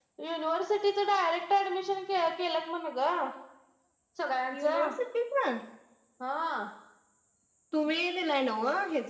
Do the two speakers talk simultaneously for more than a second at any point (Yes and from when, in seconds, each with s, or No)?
No